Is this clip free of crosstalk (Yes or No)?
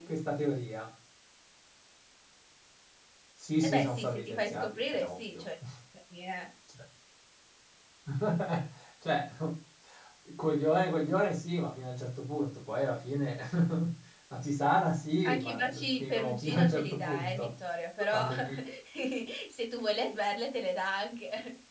No